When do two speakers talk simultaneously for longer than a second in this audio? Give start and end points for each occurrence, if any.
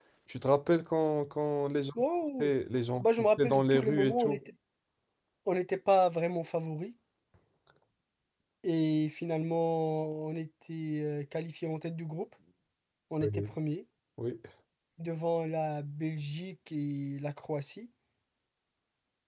3.0-4.4

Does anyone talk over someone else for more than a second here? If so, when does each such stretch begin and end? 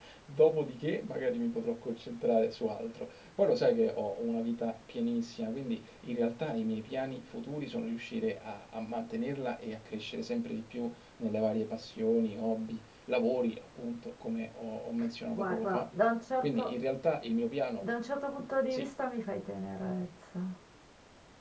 none

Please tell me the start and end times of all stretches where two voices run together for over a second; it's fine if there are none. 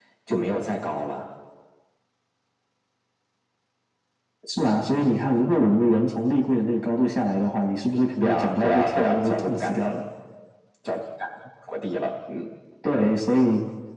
8.2-9.8

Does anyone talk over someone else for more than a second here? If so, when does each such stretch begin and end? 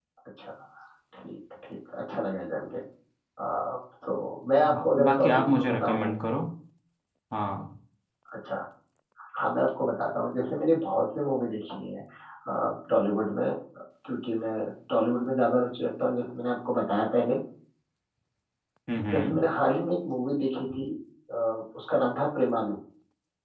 4.7-6.1

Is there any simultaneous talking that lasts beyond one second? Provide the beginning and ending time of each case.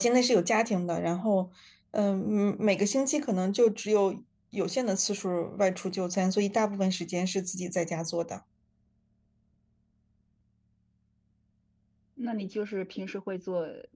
none

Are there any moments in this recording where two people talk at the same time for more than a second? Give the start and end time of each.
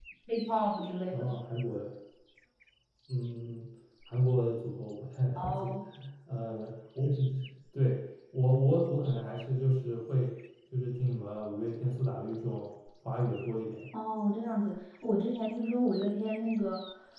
none

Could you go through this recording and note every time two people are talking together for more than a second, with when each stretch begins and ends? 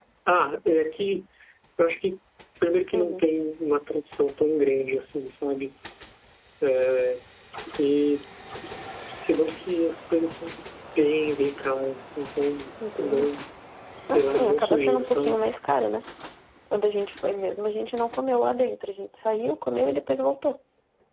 14.1-15.4

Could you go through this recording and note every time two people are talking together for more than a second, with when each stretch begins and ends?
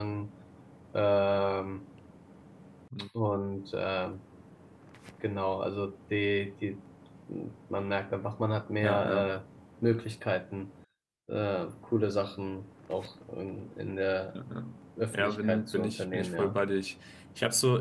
15.2-16.6

